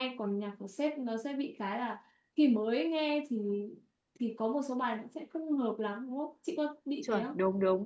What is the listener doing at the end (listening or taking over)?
taking over